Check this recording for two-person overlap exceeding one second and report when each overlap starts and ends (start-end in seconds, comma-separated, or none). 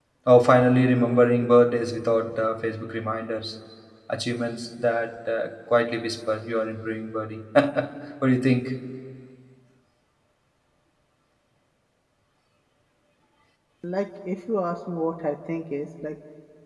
none